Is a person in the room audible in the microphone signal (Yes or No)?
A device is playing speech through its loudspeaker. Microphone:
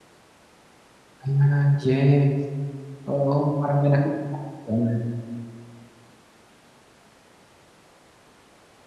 Yes